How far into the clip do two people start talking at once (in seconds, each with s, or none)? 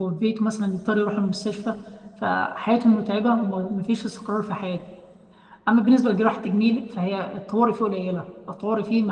none